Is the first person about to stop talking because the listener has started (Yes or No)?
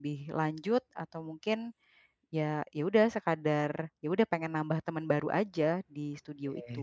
Yes